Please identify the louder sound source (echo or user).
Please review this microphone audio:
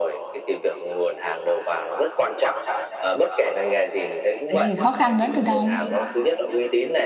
user